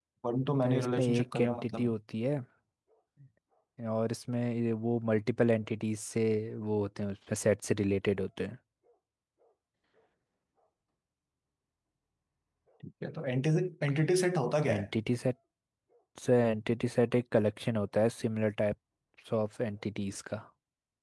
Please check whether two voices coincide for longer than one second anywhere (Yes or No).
Yes